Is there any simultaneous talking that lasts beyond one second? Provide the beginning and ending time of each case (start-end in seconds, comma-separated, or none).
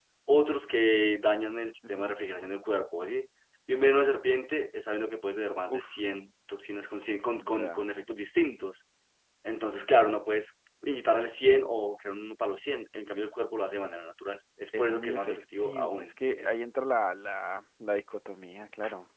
14.8-16.5